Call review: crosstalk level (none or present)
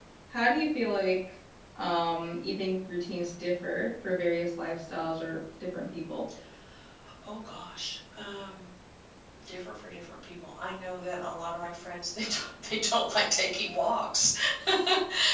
none